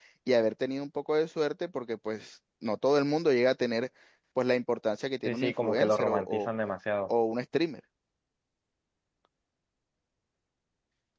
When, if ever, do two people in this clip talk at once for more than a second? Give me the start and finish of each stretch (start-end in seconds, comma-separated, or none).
5.2-6.5